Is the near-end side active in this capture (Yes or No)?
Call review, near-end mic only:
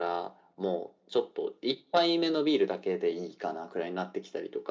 No